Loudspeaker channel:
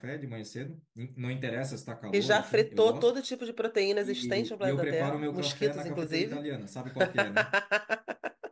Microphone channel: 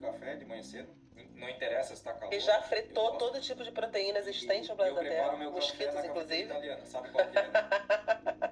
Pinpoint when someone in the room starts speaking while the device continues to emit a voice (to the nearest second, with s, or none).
none